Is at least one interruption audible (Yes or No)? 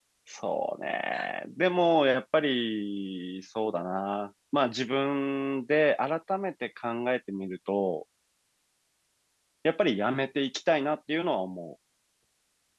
No